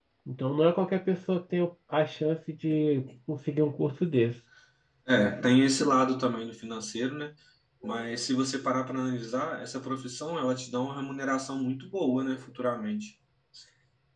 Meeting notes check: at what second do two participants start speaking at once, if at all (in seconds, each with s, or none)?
none